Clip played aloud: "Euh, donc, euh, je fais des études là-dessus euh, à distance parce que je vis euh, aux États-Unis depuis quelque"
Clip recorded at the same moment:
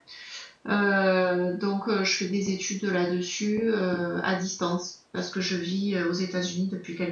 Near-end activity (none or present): none